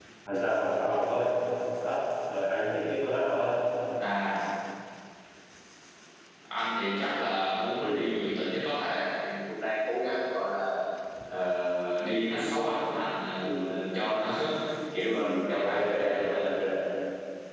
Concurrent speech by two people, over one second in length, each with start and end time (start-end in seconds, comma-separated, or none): 15.1-16.5